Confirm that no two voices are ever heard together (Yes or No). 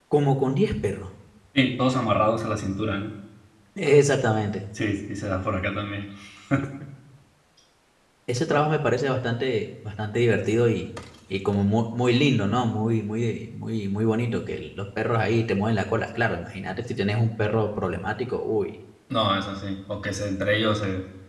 Yes